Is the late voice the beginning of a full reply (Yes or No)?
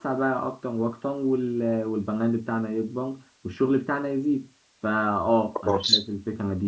No